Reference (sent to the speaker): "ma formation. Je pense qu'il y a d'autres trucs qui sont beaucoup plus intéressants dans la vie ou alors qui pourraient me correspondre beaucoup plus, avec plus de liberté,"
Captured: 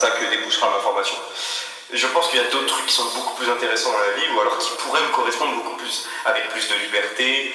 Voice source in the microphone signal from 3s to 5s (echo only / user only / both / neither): echo only